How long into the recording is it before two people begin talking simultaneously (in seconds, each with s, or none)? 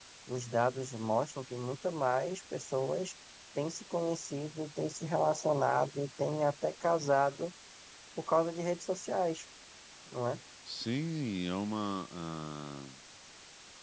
none